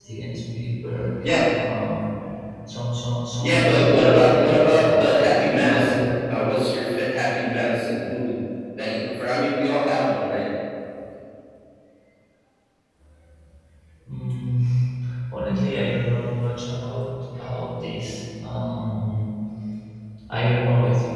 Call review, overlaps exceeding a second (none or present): present